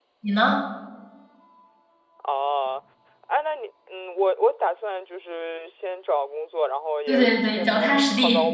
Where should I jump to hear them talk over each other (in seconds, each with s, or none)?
7.1 s